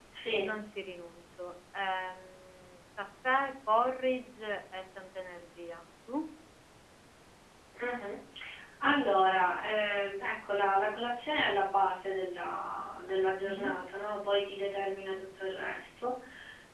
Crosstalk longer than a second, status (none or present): none